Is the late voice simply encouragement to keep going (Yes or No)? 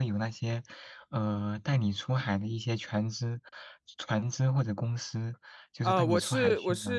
No